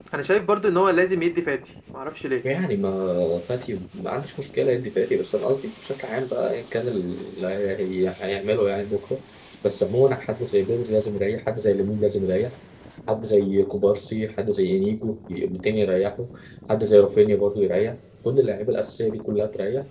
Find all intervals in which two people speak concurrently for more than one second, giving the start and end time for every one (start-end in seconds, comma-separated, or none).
none